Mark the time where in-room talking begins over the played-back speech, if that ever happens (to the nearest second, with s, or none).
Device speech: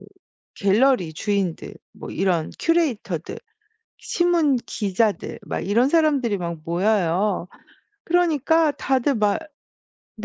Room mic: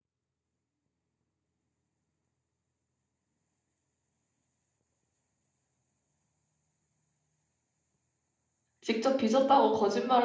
9 s